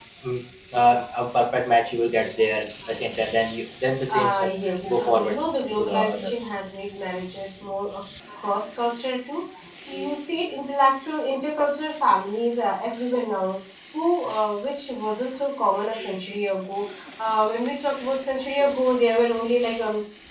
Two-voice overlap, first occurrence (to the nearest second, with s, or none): 4 s